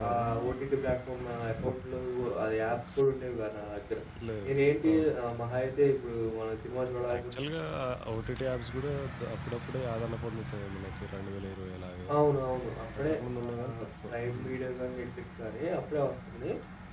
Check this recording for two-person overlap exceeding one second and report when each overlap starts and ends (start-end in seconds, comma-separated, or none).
13.0-14.6